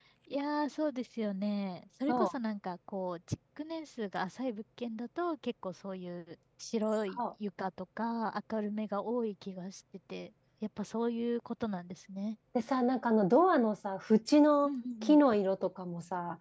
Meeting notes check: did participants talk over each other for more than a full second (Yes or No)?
No